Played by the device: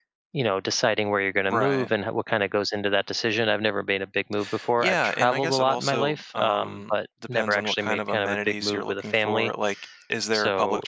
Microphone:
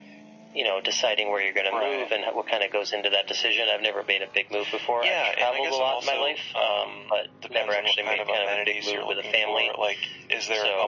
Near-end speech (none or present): none